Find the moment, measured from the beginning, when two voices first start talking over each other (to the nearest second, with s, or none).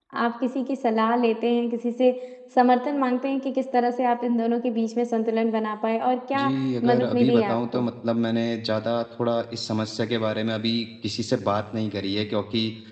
6 s